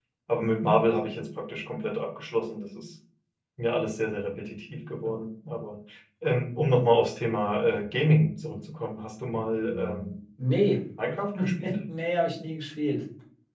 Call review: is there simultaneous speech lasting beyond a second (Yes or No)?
No